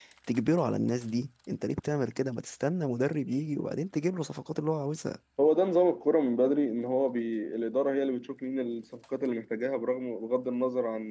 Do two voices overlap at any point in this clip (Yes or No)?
No